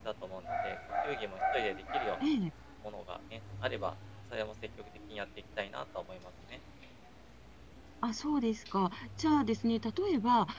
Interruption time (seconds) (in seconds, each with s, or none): none